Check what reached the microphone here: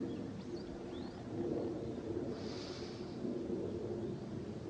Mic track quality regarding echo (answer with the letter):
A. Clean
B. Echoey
A